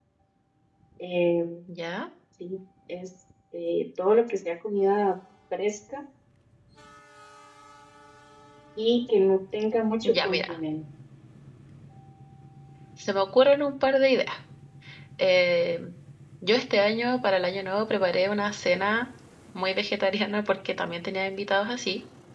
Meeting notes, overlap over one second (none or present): none